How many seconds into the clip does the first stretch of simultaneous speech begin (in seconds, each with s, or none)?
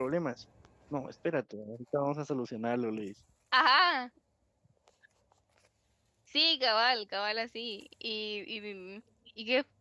none